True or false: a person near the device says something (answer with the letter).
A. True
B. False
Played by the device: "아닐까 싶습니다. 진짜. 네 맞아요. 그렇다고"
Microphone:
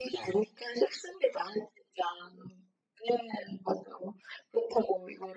B